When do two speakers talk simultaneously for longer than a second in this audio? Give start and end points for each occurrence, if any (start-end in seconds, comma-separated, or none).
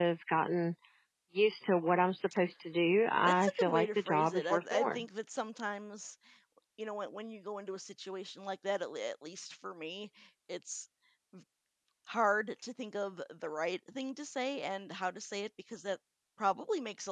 3.2-5.0